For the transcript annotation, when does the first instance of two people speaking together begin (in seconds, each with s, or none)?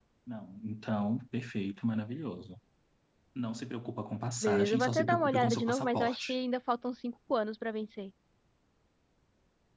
4.4 s